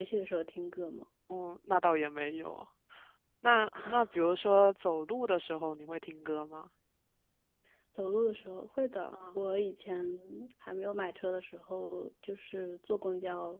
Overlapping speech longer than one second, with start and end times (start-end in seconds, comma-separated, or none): none